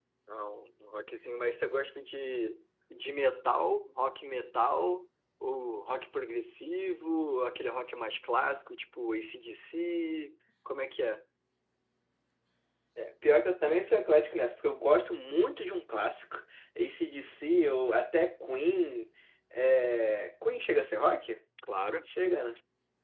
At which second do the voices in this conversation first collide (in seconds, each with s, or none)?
none